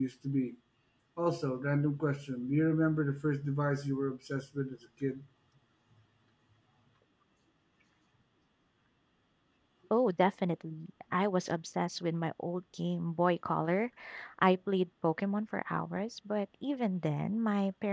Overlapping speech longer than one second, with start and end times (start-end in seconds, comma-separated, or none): none